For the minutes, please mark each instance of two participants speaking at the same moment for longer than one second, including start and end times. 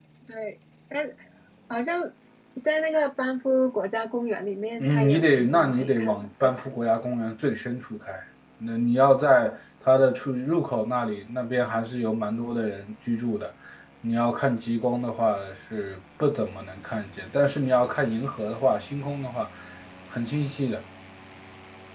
4.8-6.6

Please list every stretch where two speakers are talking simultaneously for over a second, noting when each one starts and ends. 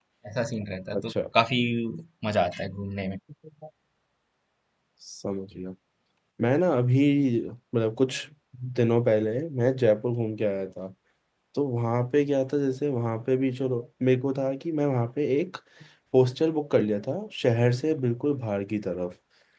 none

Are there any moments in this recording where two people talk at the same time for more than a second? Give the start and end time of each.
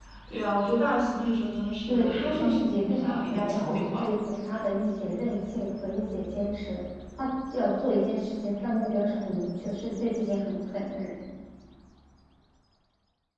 1.9-4.1

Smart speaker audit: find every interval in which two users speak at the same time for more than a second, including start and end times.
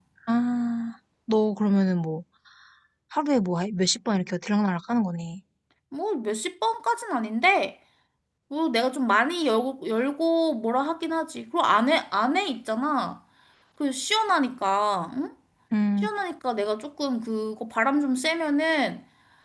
none

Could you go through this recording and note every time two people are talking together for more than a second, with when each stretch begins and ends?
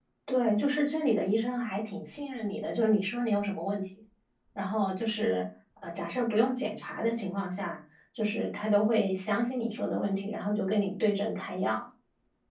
none

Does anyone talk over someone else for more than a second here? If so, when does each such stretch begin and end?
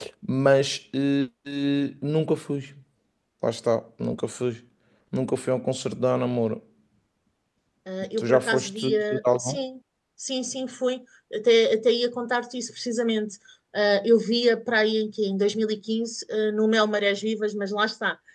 8.2-9.6

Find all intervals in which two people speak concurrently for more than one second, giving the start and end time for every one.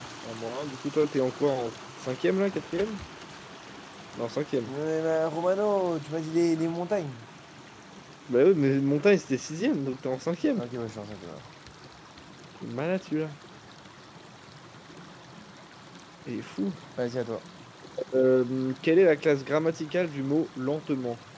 none

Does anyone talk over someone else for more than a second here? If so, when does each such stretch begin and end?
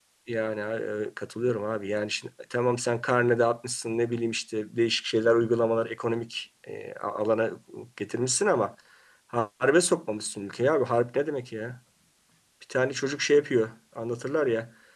none

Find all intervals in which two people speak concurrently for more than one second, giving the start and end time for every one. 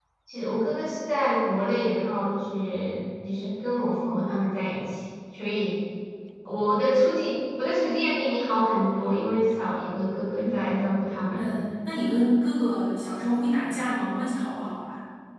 none

